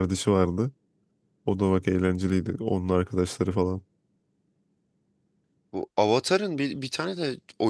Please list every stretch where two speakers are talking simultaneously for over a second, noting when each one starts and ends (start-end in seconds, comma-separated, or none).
none